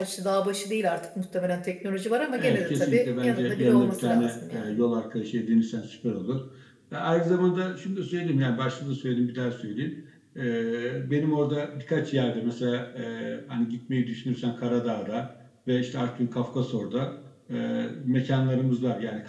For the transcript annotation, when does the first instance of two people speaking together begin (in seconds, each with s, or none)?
2.4 s